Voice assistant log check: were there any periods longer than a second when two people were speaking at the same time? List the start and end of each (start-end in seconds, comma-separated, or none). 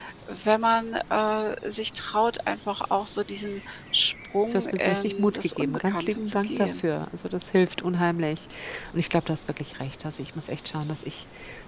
4.5-6.8